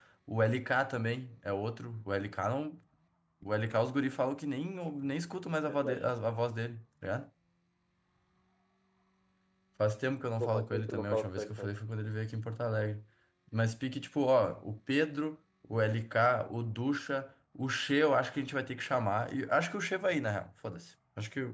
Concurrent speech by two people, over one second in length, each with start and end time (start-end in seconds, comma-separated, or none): 10.4-11.7